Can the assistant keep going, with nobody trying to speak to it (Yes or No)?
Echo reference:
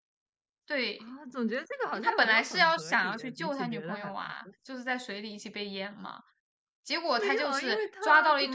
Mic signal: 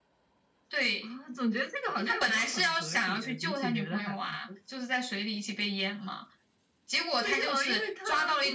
Yes